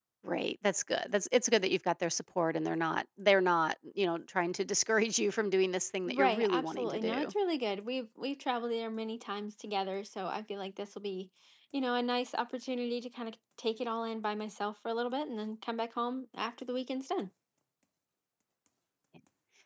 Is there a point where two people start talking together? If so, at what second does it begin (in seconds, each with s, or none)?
6.1 s